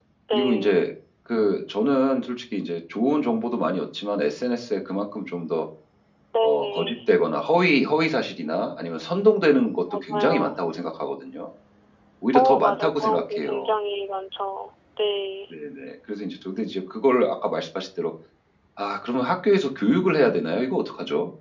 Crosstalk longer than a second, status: present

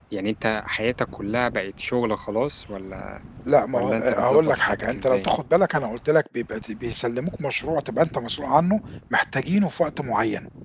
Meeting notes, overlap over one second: present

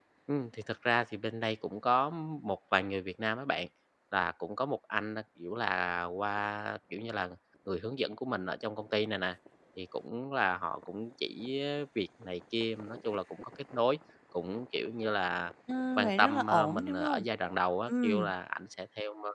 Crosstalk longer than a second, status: present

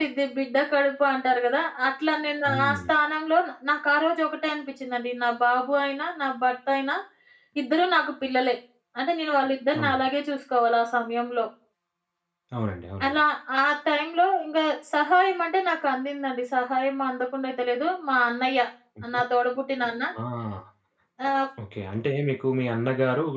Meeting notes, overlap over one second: none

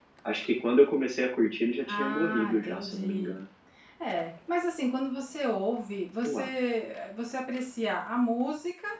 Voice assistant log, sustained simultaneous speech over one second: present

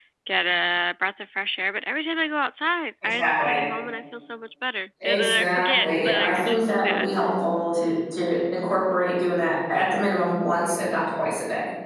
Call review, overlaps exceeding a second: present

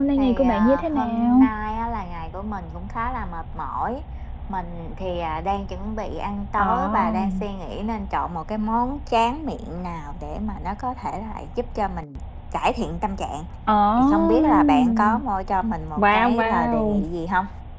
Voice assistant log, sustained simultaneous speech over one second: present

